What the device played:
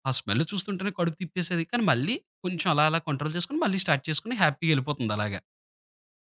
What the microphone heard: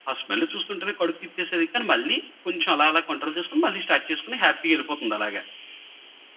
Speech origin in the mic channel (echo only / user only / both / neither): echo only